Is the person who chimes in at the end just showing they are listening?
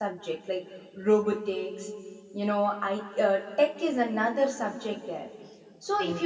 Yes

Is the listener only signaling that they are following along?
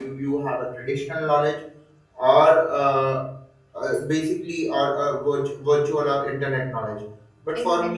Yes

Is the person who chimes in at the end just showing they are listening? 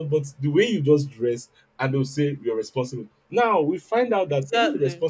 Yes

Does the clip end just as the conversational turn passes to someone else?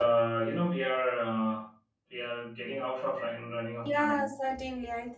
Yes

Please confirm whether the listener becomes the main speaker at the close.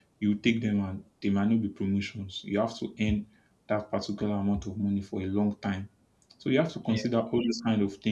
No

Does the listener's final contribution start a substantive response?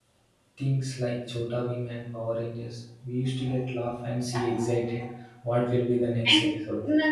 Yes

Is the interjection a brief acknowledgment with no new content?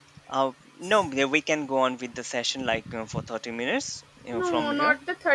No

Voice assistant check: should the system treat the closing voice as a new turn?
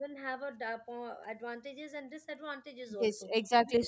Yes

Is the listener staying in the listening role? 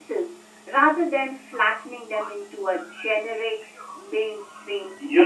No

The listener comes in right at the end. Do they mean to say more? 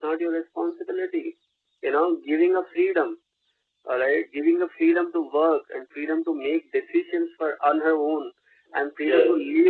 No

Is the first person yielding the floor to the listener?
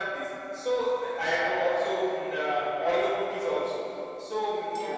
No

